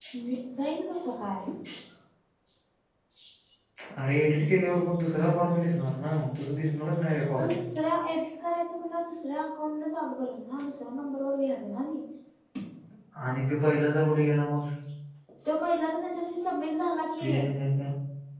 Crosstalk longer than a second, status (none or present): none